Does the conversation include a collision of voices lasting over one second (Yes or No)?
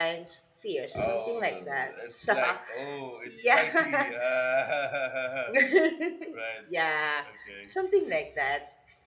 Yes